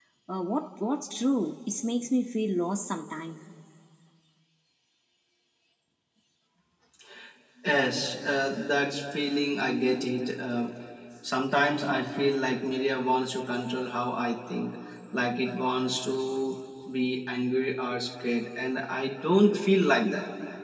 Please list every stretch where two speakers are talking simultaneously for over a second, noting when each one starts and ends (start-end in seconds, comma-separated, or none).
none